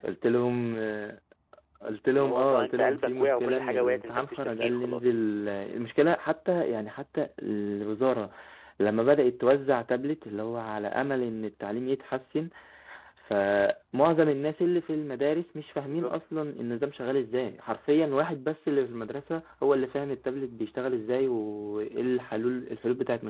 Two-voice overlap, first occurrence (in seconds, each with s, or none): 2.1 s